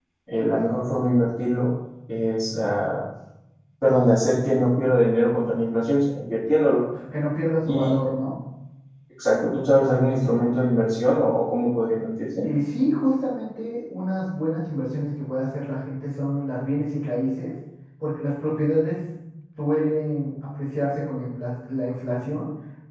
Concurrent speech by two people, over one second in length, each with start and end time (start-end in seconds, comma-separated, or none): none